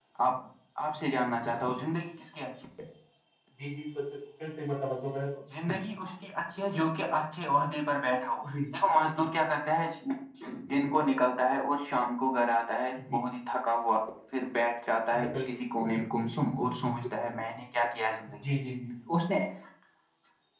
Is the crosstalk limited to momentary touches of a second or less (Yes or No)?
Yes